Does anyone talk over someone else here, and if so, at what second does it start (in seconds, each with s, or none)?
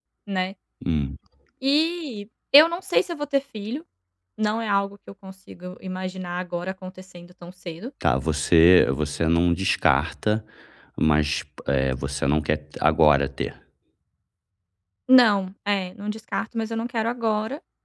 none